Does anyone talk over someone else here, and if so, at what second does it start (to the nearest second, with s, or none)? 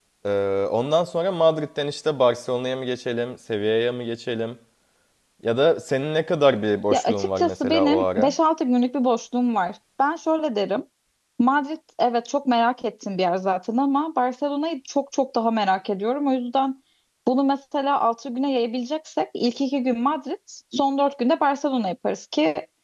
7 s